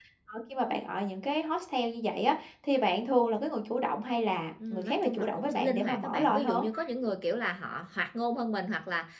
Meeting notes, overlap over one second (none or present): present